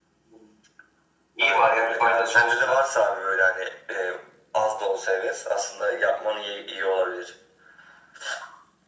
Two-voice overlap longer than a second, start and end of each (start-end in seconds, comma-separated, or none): 1.4-2.8